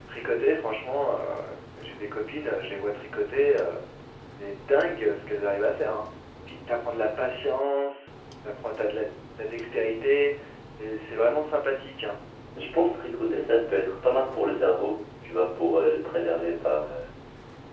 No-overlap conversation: Yes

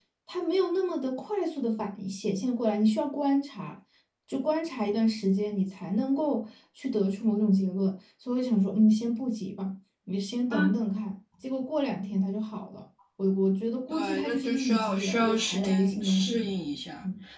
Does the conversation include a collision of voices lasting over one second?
Yes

